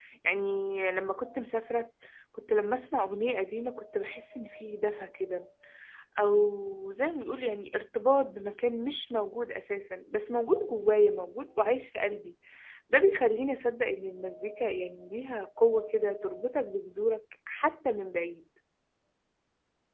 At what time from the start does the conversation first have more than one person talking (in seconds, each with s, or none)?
none